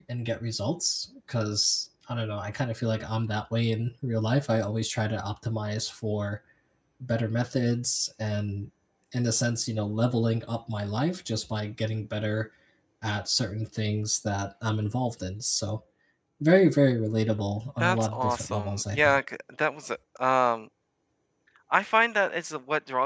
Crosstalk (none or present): present